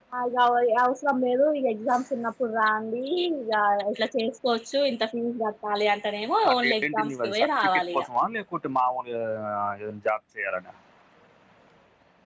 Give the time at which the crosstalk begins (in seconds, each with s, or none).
6.4 s